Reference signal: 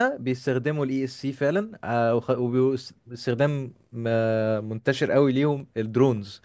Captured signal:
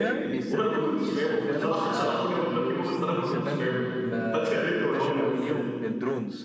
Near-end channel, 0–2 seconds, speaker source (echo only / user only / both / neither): both